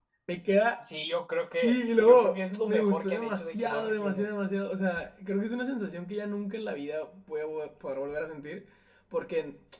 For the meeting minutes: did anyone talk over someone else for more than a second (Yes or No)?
Yes